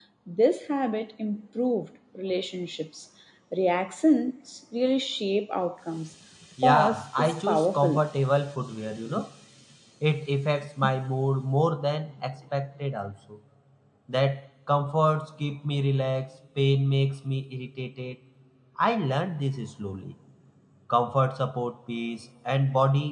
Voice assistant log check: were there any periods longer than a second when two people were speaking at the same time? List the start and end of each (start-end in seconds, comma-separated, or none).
6.7-8.0